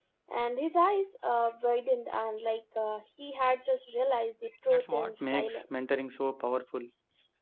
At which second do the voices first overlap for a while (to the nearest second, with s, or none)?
5 s